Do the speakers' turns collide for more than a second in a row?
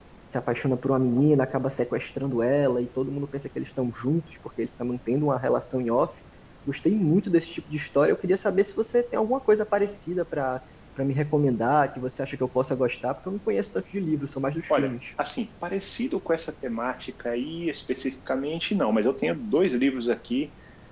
No

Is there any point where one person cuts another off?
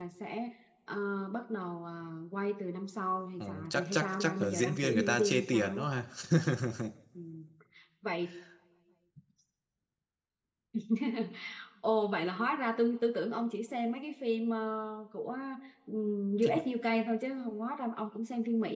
Yes, from 3.4 s

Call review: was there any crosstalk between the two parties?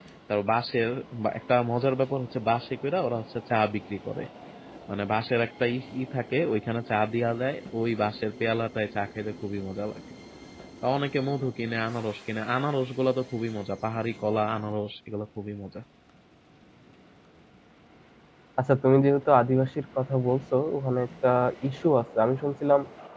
No

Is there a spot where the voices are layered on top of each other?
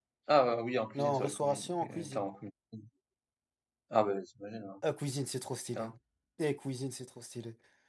Yes, from 0.9 s

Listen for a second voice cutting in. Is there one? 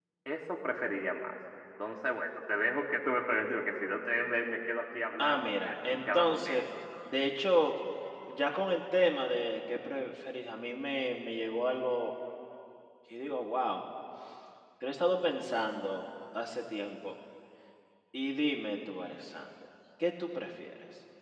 Yes, from 5.2 s

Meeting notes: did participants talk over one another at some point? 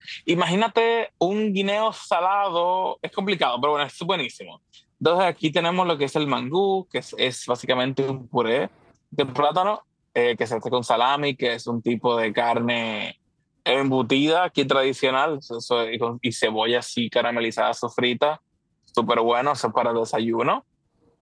No

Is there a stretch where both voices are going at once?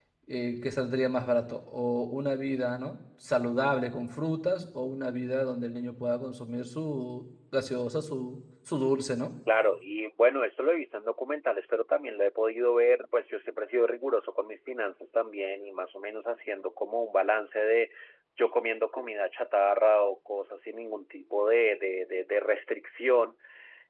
No

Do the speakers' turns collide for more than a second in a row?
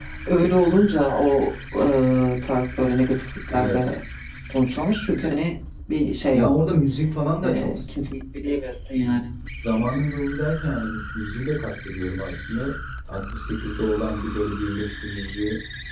No

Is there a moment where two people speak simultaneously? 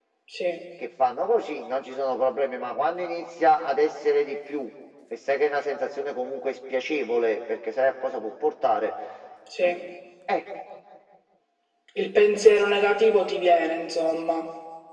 No

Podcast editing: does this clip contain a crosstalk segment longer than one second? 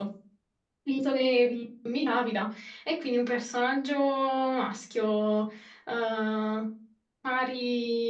No

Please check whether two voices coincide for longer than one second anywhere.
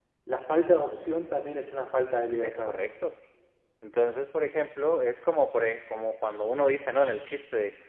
No

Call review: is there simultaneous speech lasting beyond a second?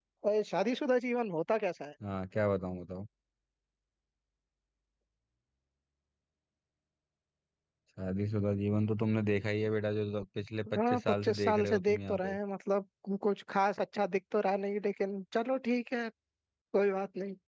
Yes, from 10.7 s

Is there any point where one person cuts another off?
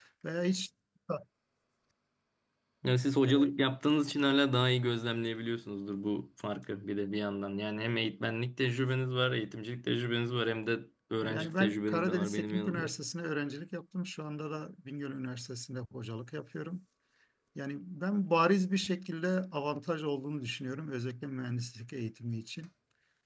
Yes, from 11.2 s

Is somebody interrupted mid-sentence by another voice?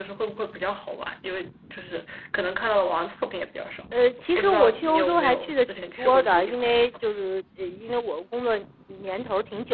Yes, from 4.4 s

